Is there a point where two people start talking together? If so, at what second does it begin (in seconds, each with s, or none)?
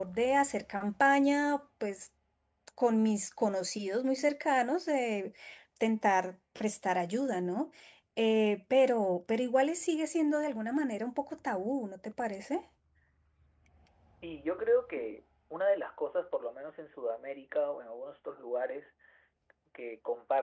none